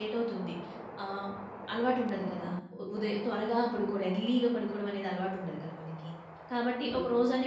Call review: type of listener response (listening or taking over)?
listening